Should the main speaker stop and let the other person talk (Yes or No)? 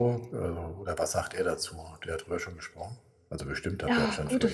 Yes